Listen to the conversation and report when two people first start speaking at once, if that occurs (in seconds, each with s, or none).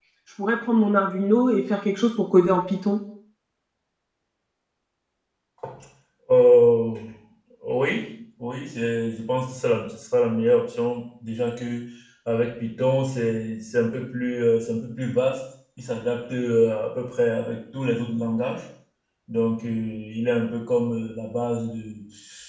none